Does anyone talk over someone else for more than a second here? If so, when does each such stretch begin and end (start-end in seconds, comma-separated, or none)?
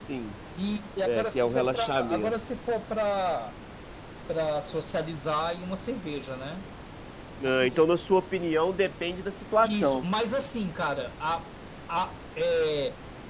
1.0-2.3